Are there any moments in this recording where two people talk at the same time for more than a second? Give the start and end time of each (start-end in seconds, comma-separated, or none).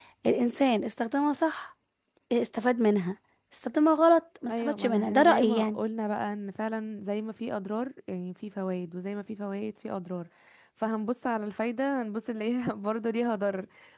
4.5-5.8